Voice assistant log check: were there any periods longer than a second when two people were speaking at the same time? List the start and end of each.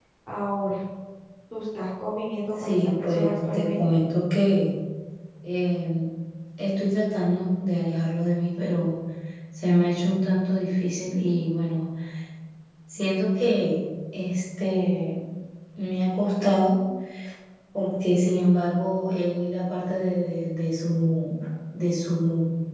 2.6-4.0

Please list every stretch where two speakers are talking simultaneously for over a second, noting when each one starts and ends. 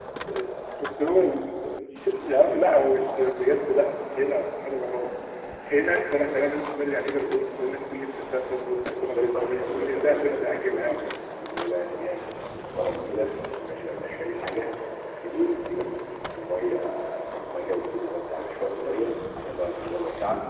8.9-11.1

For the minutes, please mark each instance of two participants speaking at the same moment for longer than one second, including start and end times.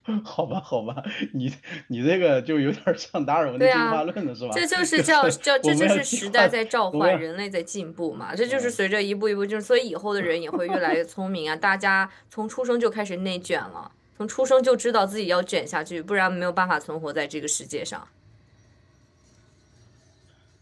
4.5-6.4

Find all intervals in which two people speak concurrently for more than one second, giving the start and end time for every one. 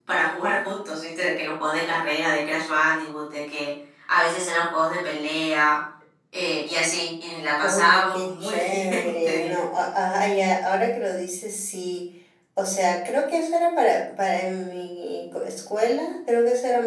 7.6-9.6

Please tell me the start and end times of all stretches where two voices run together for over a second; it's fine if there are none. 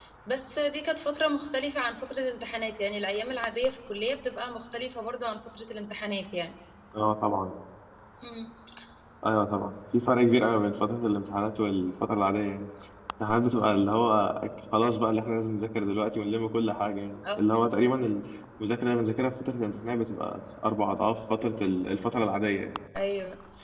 none

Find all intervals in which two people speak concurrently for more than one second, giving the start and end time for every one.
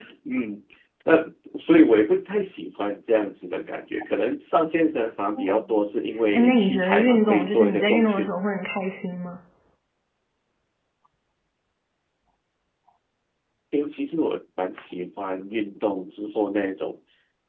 6.3-8.3

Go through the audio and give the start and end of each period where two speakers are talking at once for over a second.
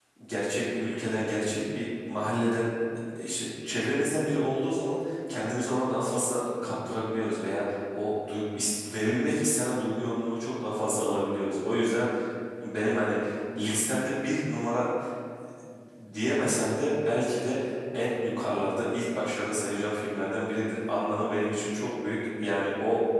none

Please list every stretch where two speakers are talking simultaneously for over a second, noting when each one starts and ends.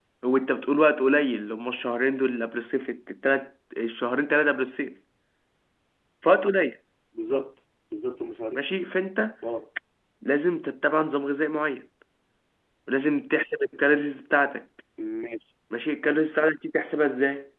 none

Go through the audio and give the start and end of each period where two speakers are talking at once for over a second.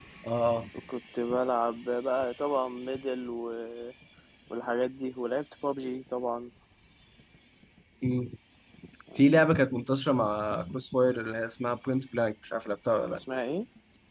none

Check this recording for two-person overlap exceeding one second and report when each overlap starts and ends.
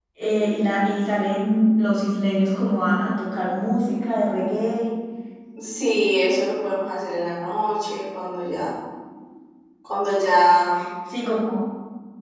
none

